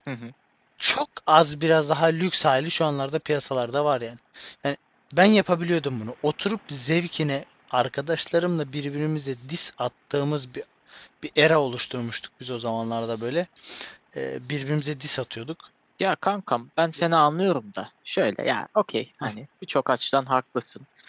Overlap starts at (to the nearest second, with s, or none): none